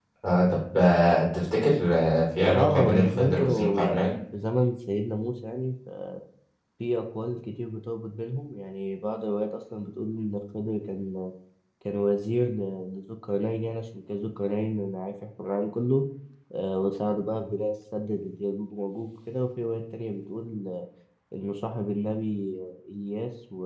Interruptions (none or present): present